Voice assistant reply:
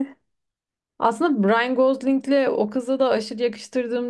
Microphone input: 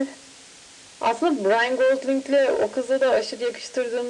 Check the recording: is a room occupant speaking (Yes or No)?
No